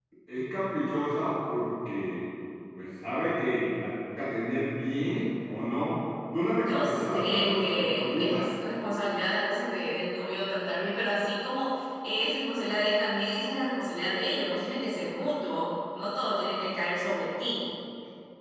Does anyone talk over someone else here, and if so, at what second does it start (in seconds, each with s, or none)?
6.6 s